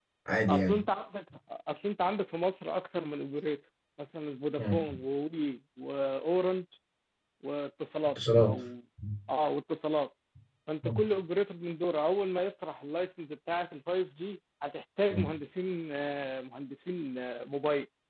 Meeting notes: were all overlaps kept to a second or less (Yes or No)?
Yes